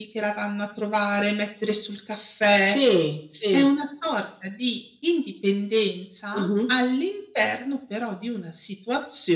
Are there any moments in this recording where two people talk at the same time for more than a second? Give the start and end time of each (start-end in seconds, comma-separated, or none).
none